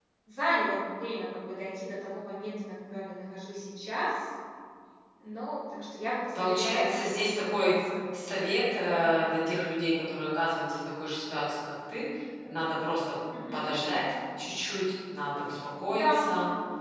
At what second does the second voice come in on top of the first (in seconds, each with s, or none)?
6.4 s